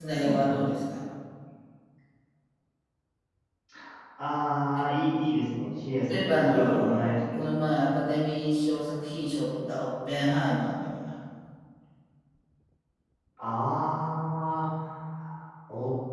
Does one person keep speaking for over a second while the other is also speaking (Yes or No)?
Yes